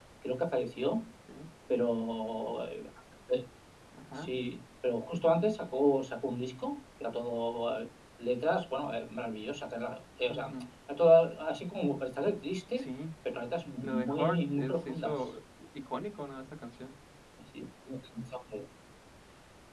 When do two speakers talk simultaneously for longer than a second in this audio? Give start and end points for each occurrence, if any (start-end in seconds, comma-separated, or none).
13.8-15.3